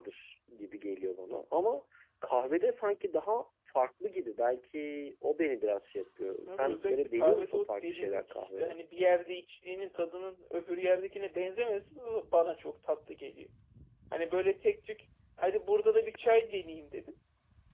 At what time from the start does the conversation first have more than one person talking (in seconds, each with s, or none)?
6.5 s